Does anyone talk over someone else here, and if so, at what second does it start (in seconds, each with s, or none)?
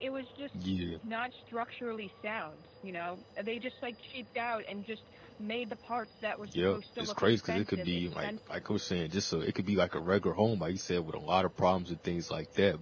6.4 s